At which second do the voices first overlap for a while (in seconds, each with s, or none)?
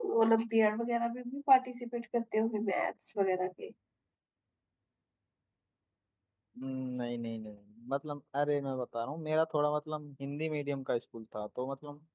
none